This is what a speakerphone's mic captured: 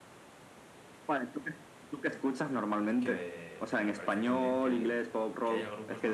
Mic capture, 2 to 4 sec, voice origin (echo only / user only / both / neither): both